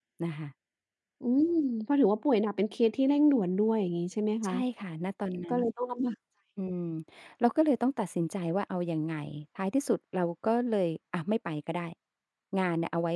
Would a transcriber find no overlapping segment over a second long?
Yes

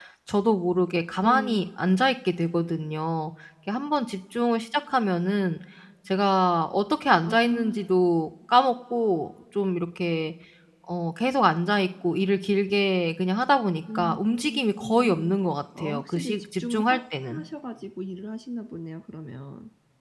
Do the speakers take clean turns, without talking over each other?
No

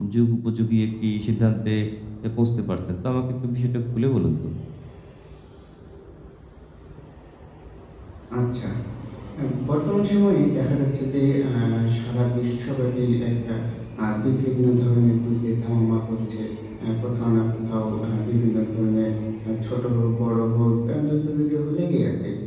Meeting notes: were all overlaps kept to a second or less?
Yes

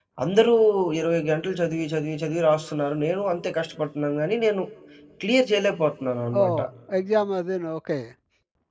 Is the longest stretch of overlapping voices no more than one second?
Yes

